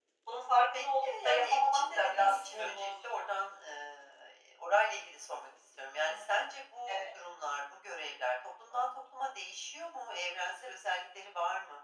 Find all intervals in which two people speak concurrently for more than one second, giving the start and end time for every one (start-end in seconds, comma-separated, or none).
0.7-3.3